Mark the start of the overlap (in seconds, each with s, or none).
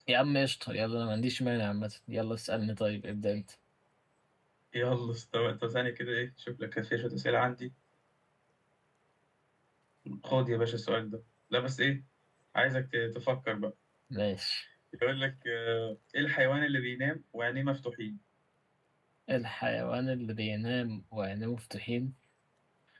none